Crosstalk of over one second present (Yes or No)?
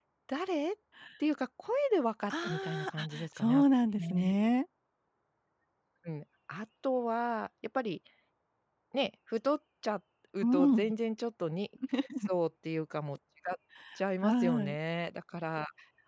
Yes